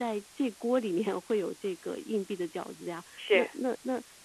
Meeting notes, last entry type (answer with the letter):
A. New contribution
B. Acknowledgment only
B